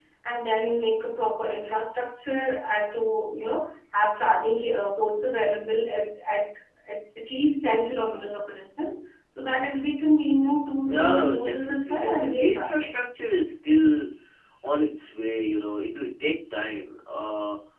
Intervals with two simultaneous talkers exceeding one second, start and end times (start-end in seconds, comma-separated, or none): 10.9-12.9